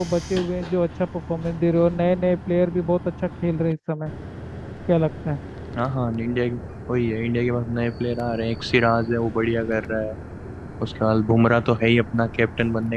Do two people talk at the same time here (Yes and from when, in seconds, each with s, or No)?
No